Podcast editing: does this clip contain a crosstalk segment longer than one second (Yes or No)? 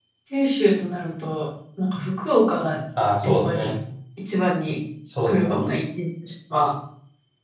No